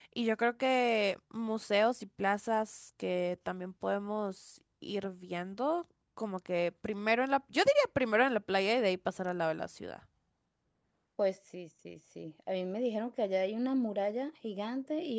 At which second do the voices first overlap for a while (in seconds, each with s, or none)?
none